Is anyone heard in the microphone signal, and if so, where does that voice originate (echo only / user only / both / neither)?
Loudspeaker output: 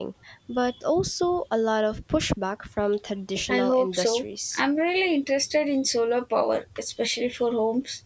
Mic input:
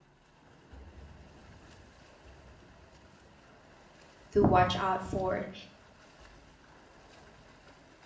user only